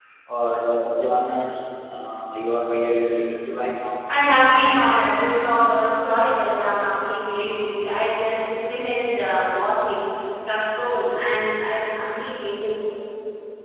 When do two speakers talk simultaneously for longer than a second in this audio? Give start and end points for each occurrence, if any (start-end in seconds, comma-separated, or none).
none